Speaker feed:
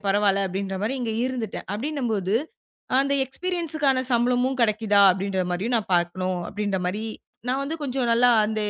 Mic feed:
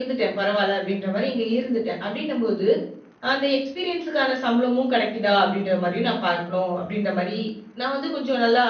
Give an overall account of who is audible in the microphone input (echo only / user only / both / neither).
echo only